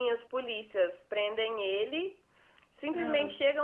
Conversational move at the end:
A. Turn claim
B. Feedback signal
B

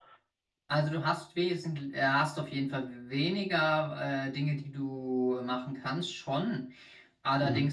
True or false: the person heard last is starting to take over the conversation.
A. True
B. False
B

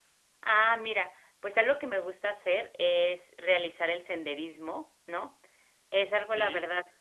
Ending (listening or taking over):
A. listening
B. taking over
A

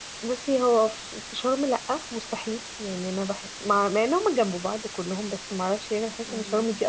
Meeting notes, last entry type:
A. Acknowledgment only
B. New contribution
A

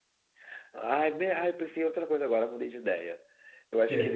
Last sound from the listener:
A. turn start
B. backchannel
B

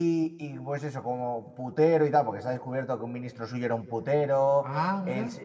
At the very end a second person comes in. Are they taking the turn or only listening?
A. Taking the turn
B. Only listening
B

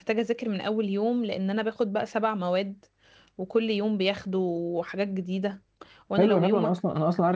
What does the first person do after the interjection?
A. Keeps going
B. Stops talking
B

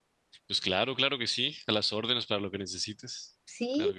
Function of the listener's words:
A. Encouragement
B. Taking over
B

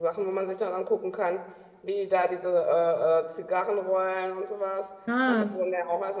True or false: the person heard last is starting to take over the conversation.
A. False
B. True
A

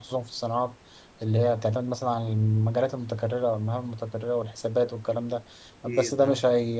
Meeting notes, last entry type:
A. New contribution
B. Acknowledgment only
B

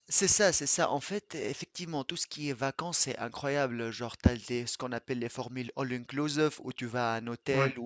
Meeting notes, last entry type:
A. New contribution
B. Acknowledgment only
B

